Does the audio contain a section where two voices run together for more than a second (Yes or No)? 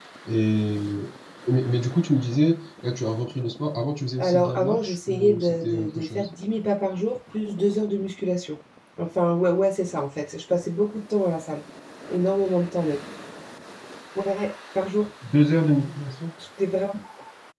Yes